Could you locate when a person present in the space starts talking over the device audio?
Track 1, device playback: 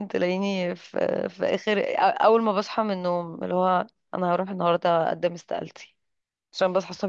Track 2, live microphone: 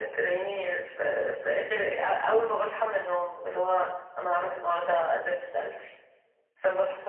none

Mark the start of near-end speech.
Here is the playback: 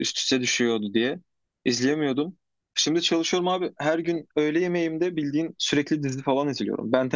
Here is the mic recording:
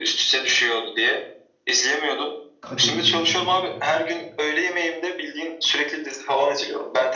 2.6 s

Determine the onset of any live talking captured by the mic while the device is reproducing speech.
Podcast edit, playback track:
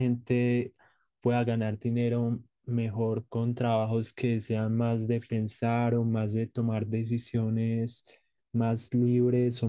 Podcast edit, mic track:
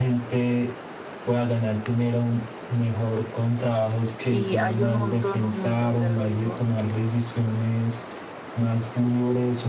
4.2 s

